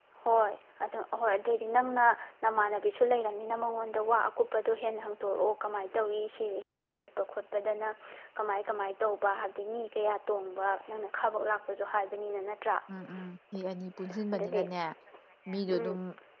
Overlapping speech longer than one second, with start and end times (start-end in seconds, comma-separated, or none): none